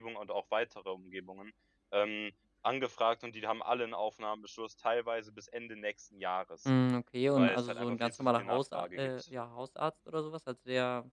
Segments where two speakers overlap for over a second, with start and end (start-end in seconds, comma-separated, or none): 7.4-9.1